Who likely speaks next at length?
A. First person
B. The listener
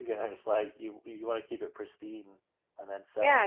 B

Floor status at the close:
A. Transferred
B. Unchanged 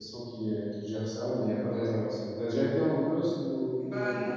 A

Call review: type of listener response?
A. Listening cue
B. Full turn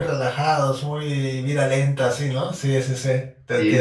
B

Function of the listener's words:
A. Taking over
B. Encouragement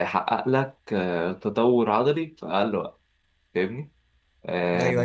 A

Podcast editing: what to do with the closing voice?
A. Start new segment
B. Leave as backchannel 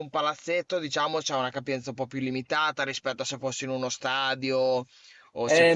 A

